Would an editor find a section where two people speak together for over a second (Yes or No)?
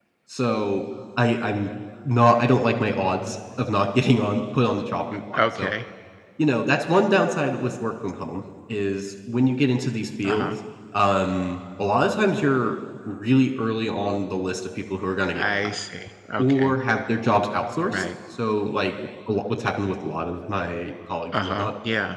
No